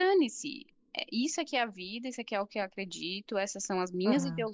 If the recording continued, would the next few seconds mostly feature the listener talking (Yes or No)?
No